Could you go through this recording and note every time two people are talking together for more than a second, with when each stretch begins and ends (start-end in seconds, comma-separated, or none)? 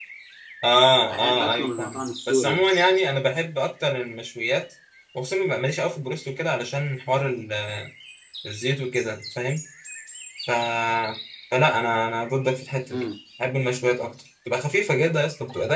1.1-2.7